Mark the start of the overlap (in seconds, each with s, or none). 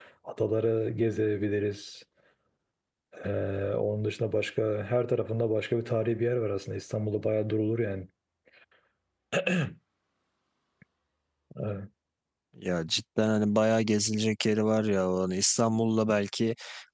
none